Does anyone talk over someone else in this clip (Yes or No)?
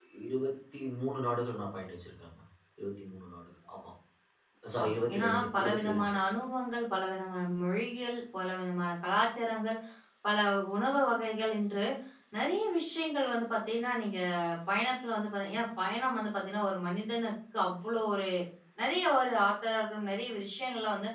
Yes